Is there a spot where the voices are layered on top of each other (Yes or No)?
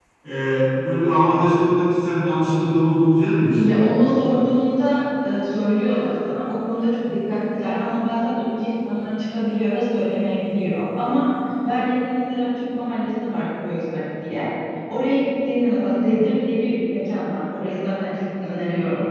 No